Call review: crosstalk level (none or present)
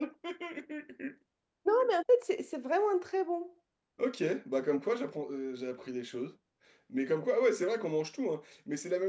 none